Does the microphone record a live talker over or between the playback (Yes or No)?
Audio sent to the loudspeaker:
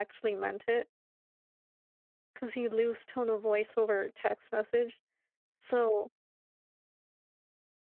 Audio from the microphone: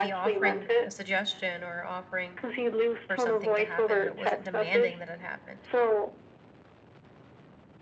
Yes